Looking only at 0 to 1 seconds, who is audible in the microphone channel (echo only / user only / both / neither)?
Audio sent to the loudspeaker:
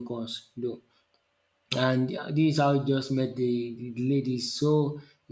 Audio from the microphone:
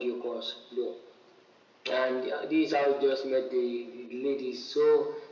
echo only